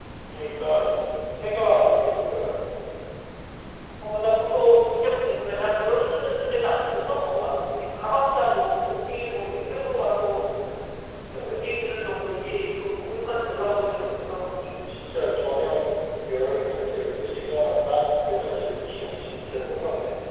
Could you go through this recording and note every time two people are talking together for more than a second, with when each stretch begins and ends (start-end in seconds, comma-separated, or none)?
none